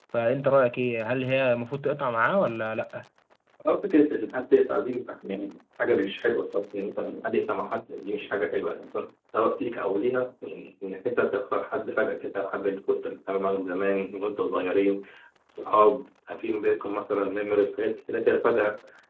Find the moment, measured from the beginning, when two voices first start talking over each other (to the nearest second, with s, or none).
none